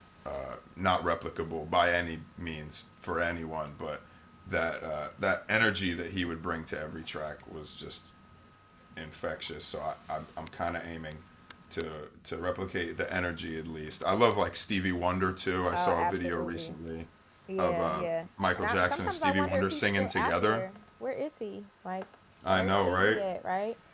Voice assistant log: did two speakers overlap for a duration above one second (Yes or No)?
Yes